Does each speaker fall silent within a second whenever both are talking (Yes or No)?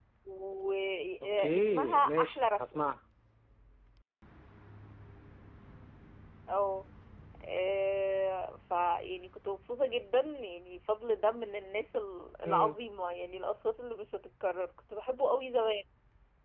No